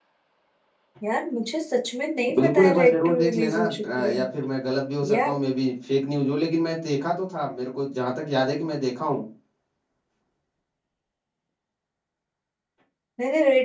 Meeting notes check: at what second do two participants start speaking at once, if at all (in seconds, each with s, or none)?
2.4 s